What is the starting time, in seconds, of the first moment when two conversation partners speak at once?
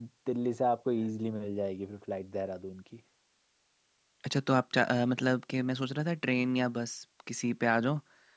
none

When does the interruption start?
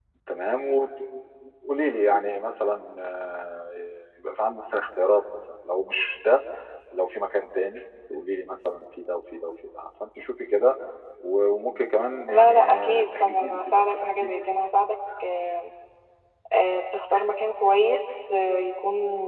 12.3 s

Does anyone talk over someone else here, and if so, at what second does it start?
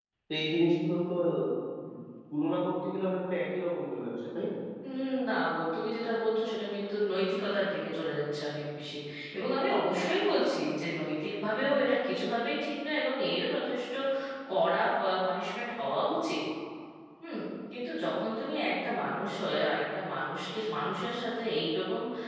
none

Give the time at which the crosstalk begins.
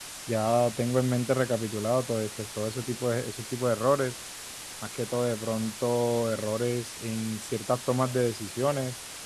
none

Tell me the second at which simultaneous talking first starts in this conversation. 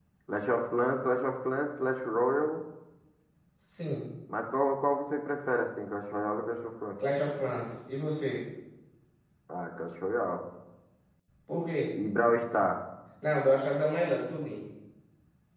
none

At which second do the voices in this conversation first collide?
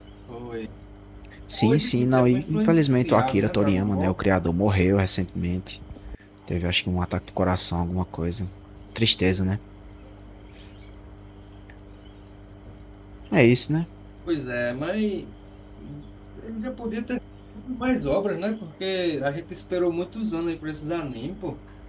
1.5 s

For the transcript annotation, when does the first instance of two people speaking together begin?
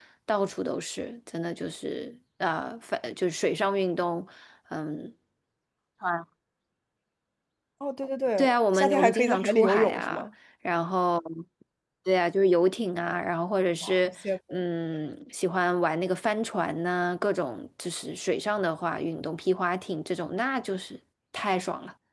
8.4 s

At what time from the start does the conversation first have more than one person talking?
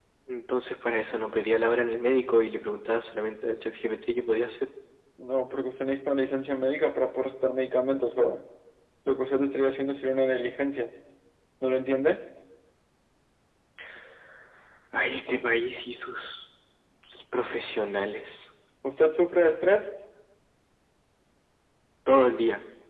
none

